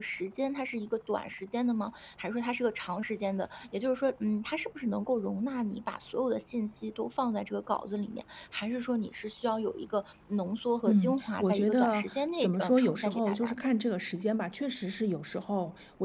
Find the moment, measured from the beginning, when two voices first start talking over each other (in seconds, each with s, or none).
10.8 s